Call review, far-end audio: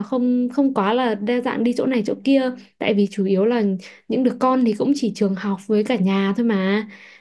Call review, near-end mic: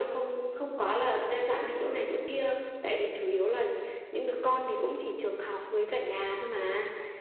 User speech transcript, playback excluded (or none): none